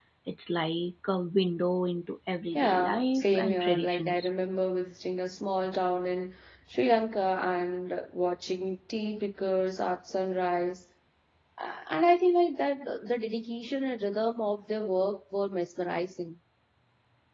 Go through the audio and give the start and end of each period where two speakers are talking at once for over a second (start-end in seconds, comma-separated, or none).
2.5-4.3